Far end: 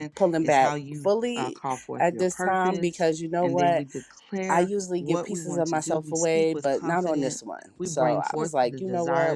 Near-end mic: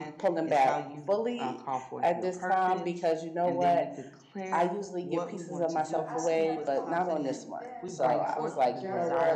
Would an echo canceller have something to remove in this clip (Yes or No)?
Yes